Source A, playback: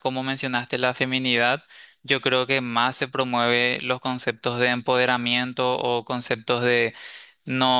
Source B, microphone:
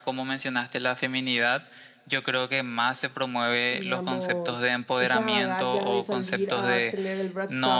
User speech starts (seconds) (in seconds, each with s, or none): 3.7 s